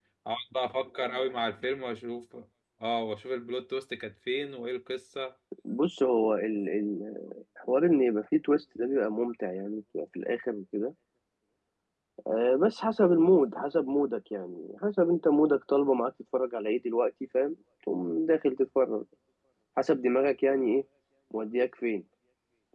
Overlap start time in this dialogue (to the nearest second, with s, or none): none